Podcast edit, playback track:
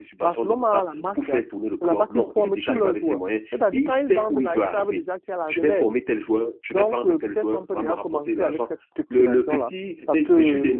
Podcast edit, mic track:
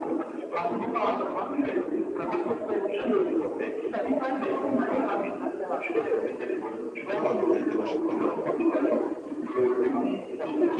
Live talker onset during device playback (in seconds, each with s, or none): 7.1 s